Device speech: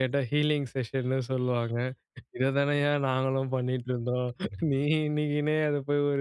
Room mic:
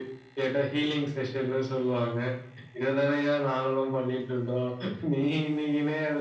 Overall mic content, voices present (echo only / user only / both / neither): echo only